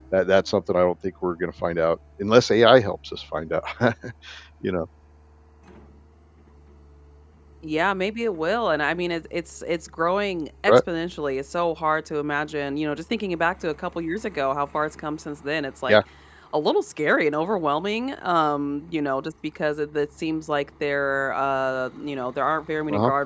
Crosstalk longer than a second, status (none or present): none